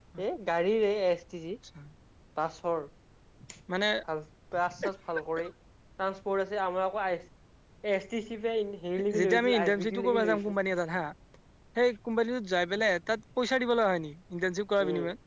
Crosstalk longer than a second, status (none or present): present